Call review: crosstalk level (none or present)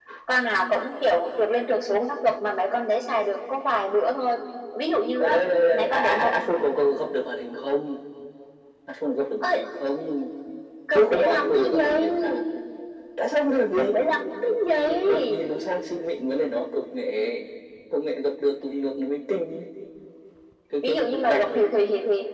present